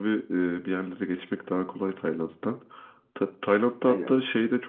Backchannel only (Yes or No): Yes